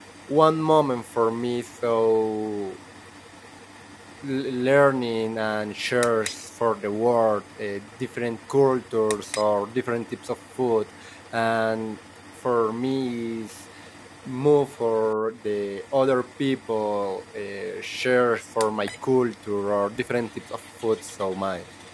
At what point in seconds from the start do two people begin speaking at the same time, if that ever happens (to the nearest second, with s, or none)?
none